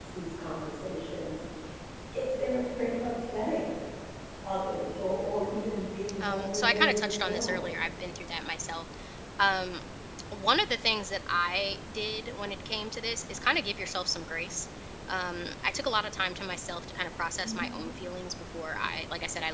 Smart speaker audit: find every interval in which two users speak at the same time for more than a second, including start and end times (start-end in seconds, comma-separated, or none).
6.2-7.7